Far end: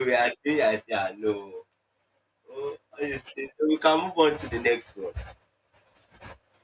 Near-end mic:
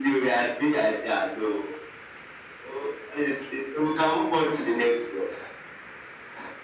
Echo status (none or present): present